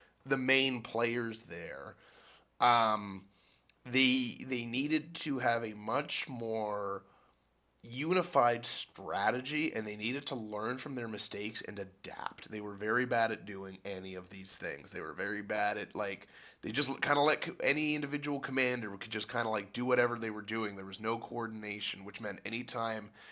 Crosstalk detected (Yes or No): No